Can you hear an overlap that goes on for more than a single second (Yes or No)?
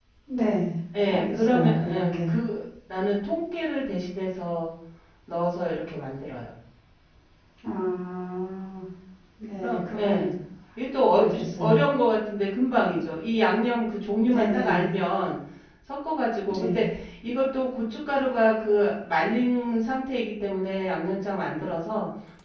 Yes